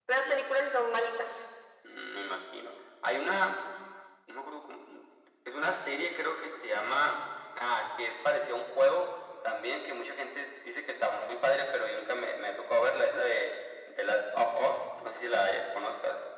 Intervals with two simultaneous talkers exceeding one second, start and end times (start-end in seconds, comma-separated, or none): none